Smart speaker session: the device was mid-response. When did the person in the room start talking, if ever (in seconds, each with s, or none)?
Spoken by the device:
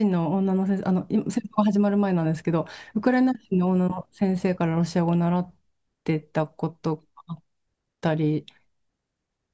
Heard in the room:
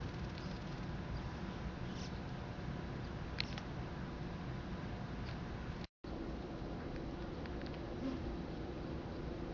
none